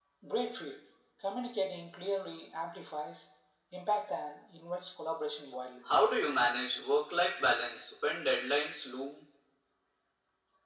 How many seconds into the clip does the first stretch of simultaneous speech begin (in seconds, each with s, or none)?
none